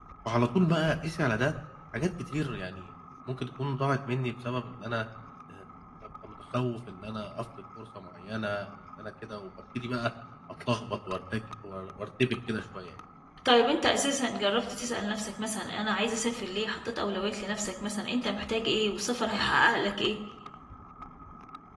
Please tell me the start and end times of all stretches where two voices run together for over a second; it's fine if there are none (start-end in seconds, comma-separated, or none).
none